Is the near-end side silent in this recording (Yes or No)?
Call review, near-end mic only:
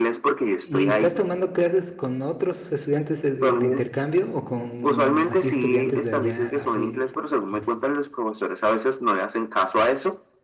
No